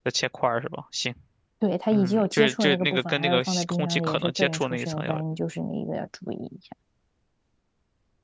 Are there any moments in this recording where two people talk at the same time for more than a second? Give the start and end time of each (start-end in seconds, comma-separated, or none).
1.9-5.2